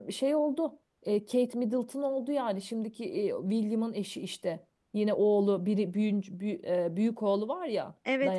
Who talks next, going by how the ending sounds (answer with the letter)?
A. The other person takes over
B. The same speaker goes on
A